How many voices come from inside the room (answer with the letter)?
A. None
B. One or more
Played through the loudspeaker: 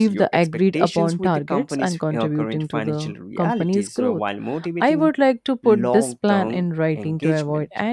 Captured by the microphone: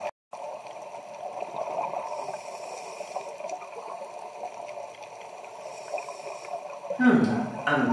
B